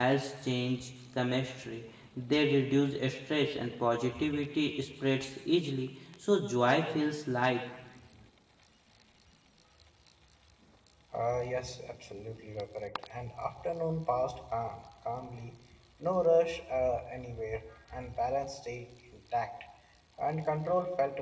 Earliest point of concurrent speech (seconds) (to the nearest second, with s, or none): none